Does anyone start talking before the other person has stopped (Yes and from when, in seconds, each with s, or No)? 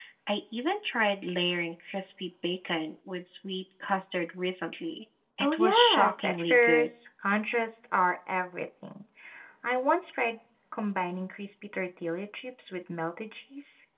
Yes, from 5.4 s